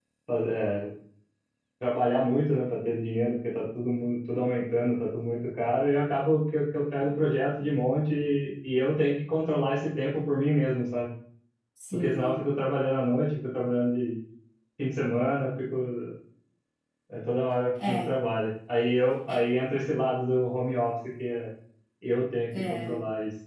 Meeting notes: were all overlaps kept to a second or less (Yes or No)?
Yes